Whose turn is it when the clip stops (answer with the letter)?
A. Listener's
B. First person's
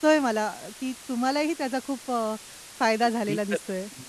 A